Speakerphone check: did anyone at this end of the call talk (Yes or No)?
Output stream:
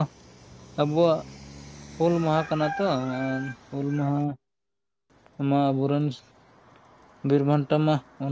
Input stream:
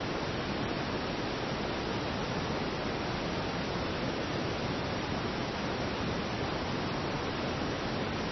No